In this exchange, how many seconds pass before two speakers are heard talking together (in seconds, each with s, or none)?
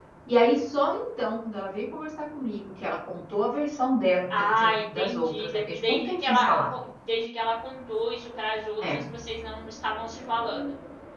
4.3 s